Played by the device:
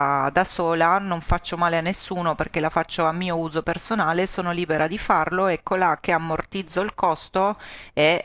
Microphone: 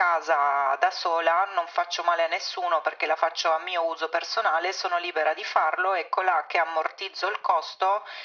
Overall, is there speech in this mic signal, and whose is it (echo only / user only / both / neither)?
echo only